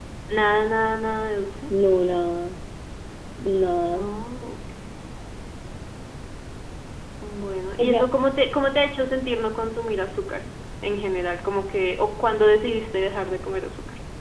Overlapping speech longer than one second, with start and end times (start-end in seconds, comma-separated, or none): none